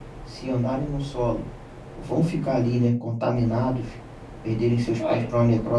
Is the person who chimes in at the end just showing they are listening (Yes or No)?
Yes